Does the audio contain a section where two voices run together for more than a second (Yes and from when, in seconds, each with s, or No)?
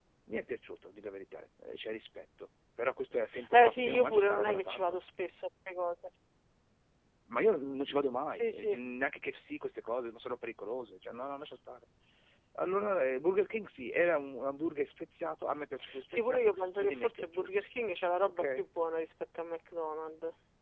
Yes, from 3.5 s